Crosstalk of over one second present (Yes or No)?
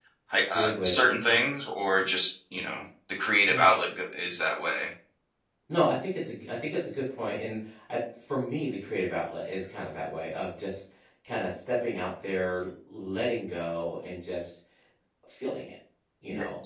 No